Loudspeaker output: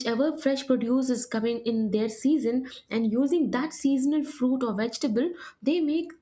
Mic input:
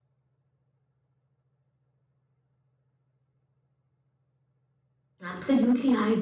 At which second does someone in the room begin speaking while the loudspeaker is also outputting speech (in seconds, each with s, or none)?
5.2 s